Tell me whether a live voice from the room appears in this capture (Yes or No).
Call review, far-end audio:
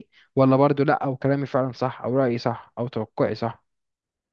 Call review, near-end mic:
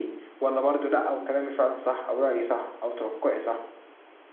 No